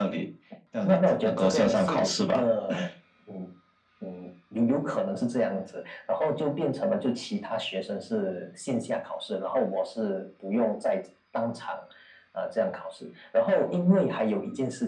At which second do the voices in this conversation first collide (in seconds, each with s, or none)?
0.8 s